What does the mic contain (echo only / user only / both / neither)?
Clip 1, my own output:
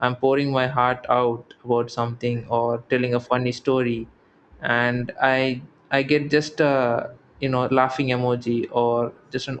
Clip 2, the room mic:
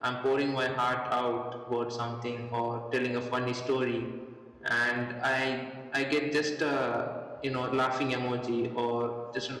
echo only